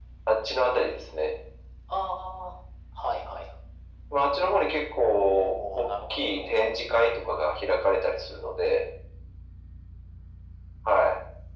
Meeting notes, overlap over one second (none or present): present